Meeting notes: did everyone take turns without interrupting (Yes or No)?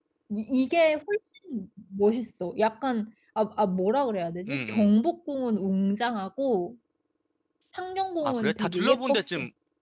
No